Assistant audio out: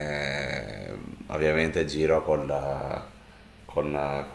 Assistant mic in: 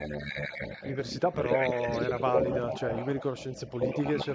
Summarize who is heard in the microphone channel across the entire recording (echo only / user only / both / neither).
both